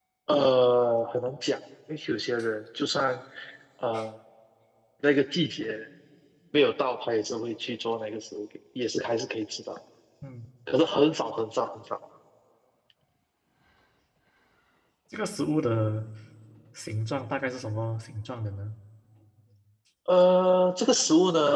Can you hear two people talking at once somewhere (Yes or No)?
No